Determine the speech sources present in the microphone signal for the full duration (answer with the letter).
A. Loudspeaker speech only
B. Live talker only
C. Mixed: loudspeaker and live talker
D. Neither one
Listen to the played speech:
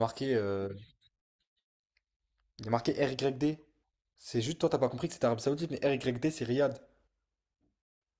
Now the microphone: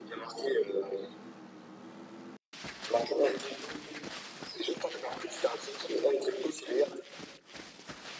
A